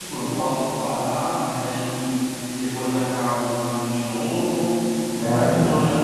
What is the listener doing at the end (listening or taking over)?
listening